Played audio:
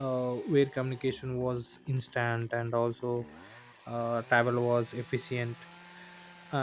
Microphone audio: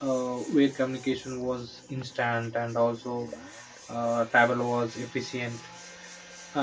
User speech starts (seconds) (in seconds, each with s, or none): none